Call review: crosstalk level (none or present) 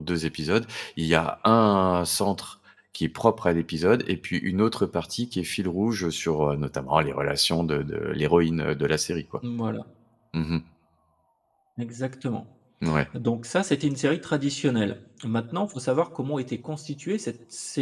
none